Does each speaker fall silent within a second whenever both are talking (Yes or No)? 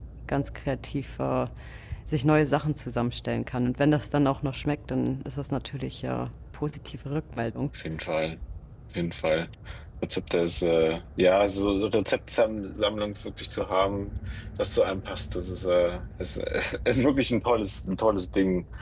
Yes